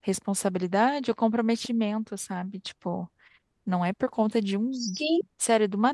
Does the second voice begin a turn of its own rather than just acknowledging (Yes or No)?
No